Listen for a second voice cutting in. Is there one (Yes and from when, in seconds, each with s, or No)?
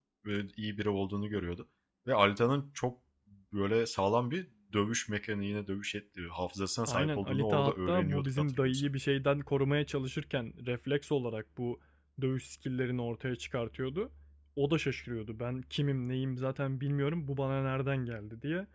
Yes, from 6.9 s